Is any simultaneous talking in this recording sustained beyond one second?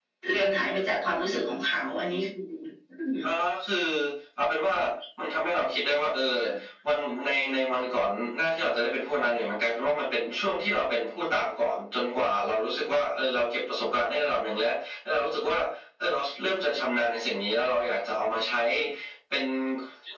No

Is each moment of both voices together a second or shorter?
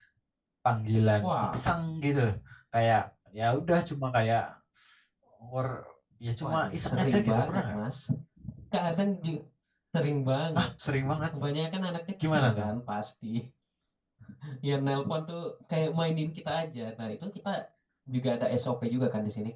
No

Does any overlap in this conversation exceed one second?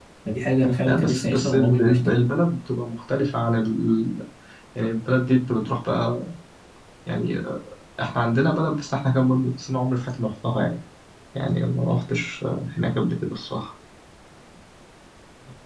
Yes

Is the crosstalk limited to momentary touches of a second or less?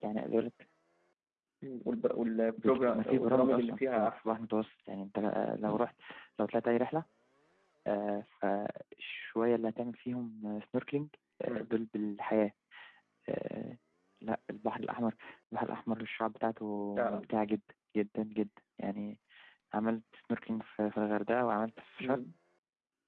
No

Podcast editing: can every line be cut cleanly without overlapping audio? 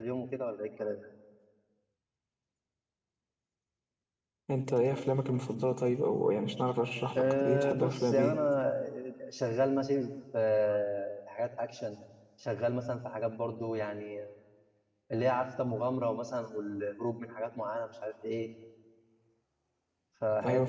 No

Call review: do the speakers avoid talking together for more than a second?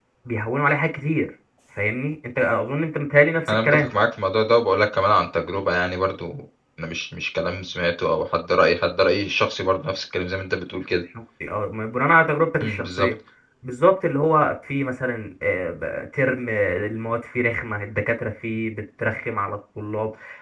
Yes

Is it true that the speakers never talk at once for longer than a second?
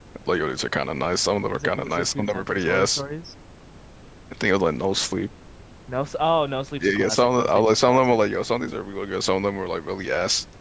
No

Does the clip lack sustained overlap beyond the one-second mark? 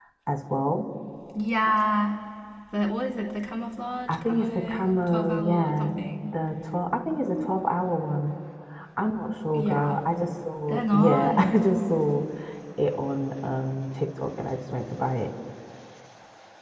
No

